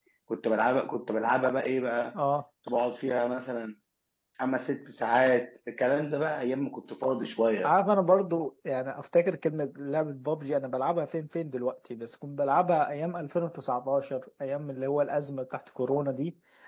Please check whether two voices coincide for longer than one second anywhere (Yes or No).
No